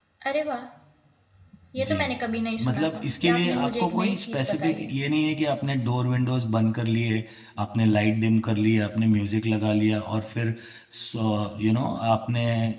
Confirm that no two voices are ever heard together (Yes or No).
No